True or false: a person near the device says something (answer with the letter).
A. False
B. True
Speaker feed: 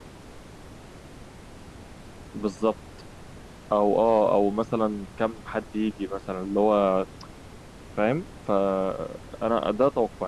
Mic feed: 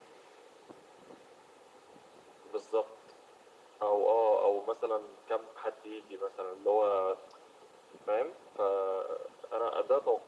A